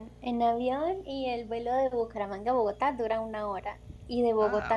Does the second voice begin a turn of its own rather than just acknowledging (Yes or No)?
No